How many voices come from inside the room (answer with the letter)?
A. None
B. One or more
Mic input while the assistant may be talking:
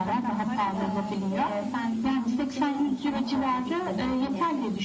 B